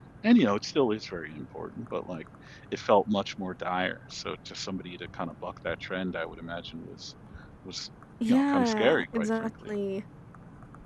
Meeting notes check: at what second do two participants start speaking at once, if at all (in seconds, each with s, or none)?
8.3 s